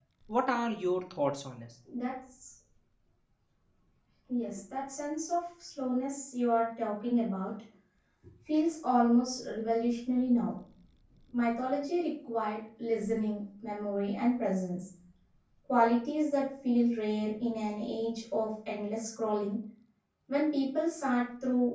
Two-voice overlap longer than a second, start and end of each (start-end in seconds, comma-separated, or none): none